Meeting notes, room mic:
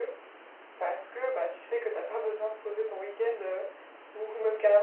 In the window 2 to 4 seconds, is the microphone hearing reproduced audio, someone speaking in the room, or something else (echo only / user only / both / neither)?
echo only